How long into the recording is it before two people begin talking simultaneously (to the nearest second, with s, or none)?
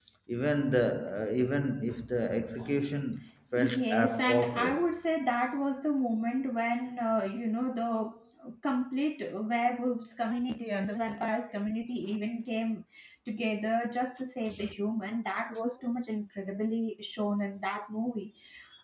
4 s